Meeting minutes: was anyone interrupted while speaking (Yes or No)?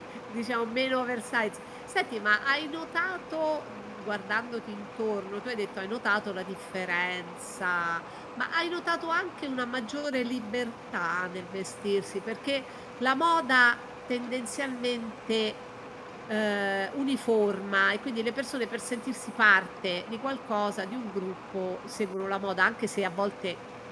No